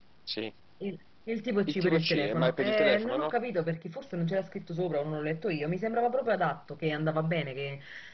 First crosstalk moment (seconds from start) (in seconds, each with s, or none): 1.8 s